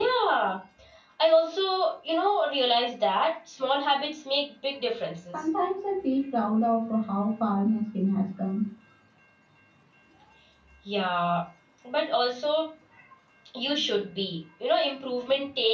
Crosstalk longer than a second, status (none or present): none